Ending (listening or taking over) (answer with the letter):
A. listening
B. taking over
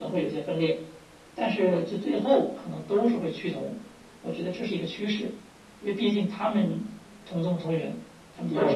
B